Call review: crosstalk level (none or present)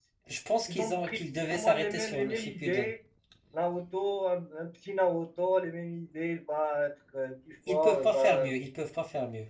present